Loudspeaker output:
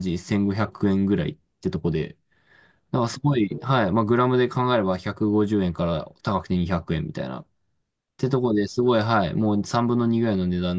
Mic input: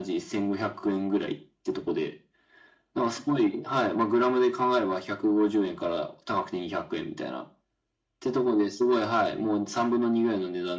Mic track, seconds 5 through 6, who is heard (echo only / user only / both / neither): echo only